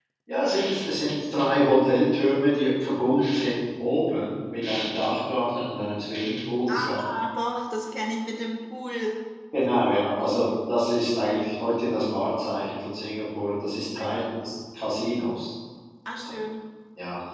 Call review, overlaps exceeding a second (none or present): none